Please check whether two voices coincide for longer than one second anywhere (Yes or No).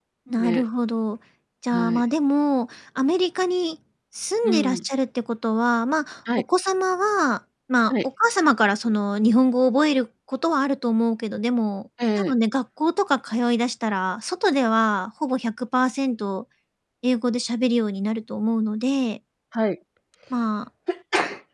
No